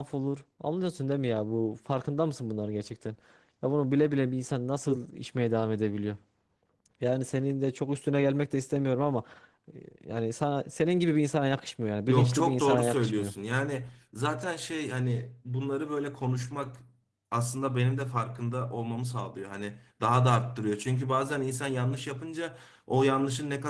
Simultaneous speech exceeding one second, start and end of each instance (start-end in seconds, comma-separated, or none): 12.1-13.3